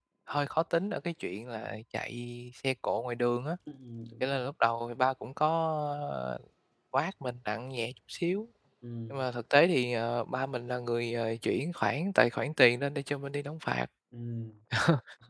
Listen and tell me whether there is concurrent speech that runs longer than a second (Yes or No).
No